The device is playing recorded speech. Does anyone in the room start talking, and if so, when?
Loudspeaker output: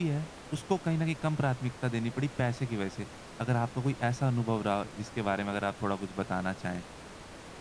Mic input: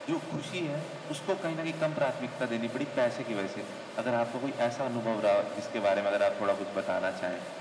none

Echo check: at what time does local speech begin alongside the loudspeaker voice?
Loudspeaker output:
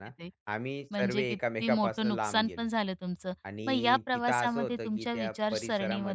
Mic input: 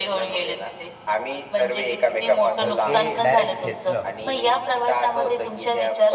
2.6 s

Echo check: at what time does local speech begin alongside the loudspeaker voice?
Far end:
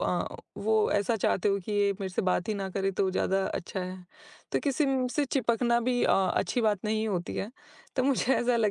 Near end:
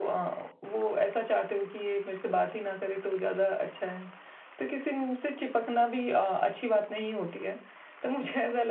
none

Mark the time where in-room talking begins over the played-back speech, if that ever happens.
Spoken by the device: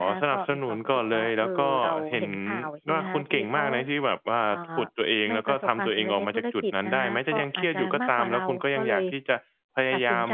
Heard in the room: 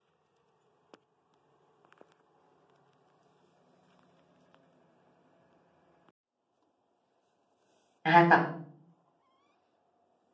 8.1 s

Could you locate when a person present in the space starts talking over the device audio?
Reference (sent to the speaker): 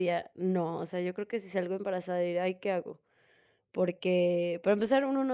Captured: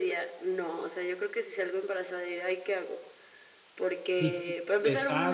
4.2 s

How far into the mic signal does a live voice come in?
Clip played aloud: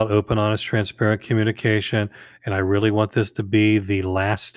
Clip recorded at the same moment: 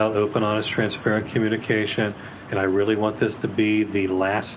none

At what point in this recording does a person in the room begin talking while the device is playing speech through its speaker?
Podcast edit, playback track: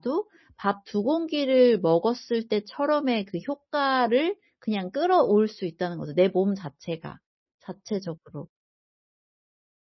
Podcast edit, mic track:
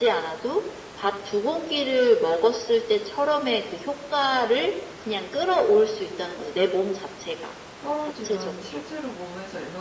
7.8 s

